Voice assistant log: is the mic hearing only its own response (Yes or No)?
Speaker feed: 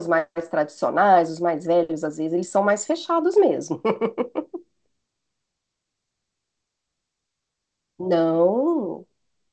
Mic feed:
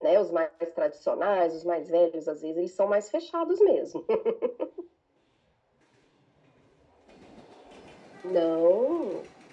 Yes